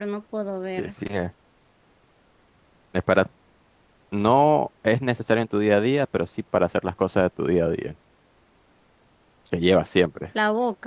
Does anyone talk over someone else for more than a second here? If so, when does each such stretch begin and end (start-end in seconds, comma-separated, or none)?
none